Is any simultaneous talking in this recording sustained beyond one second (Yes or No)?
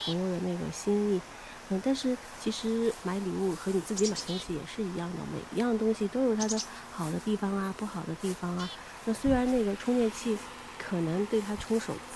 No